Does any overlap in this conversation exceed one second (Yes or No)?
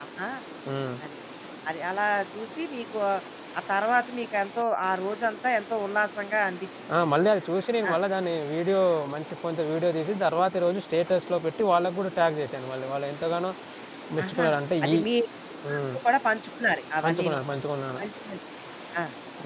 No